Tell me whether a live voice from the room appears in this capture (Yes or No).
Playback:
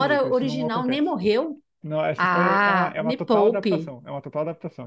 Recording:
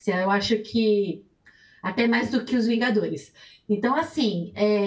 Yes